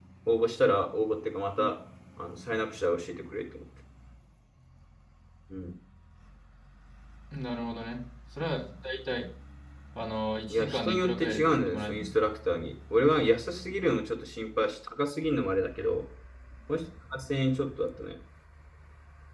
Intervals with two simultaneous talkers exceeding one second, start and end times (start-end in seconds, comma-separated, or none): 10.5-12.1